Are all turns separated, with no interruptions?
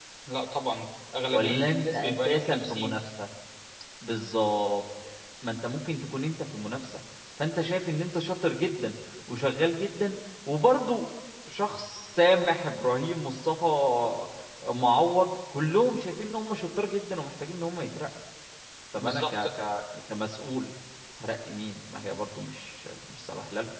No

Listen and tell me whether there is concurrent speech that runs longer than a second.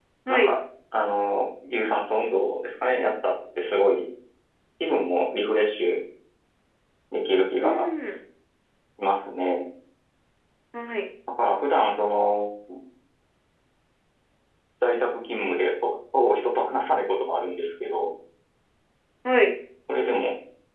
No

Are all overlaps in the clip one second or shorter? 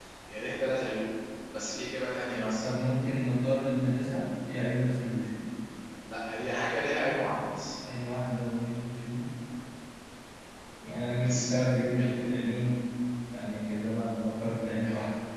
Yes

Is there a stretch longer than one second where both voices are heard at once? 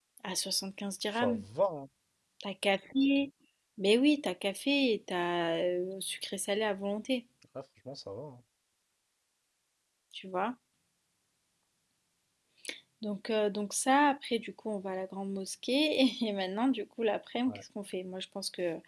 No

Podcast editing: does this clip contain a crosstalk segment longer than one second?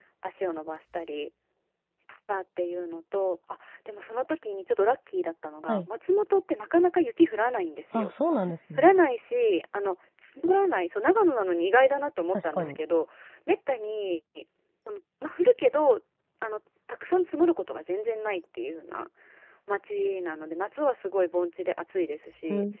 No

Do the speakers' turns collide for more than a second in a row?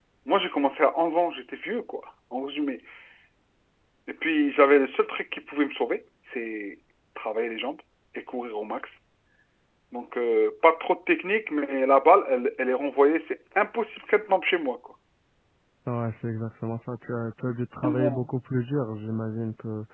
No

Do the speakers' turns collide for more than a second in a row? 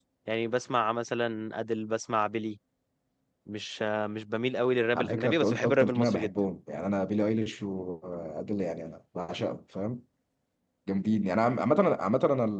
Yes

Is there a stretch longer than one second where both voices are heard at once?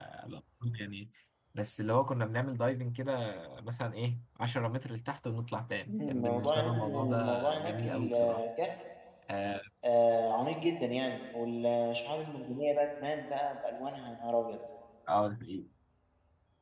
Yes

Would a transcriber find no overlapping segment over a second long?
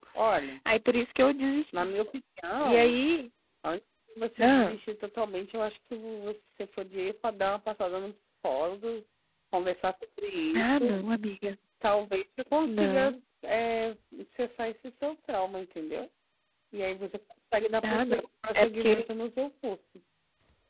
Yes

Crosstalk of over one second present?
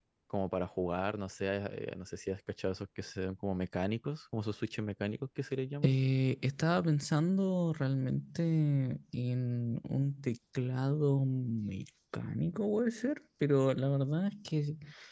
No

